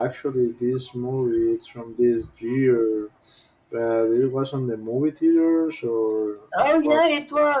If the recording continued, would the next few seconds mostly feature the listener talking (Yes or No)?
Yes